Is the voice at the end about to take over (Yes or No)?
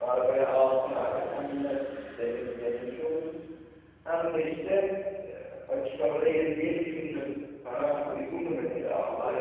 Yes